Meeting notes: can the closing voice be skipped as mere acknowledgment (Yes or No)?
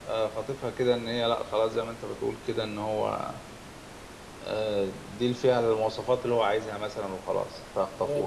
No